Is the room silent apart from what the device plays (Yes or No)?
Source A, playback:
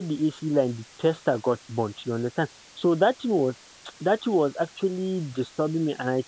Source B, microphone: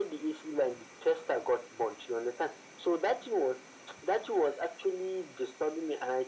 Yes